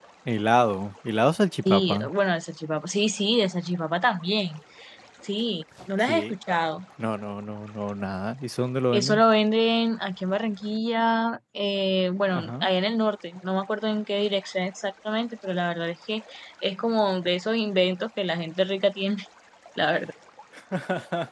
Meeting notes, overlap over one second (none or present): none